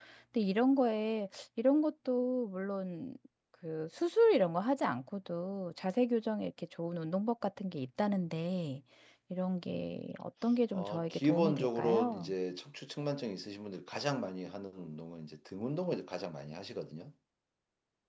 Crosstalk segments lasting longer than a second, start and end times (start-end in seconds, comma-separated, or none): 10.7-12.3